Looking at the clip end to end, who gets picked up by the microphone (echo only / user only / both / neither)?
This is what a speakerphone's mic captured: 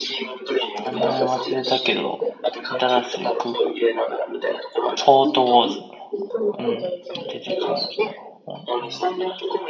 both